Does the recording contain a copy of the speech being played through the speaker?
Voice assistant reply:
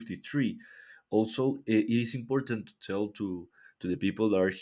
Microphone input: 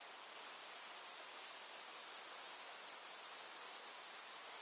No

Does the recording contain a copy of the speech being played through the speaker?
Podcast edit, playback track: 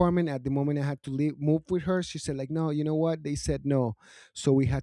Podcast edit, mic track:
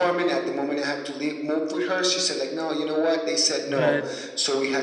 Yes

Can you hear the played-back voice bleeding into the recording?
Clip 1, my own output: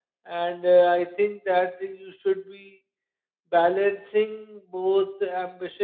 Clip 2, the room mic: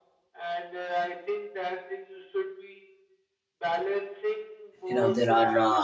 Yes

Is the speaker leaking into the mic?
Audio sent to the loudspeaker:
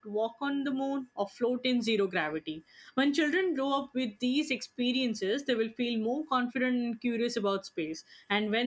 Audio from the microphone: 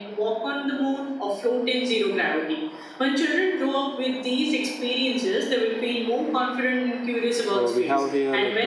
Yes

